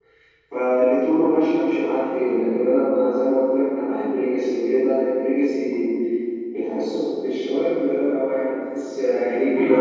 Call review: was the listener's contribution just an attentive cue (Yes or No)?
No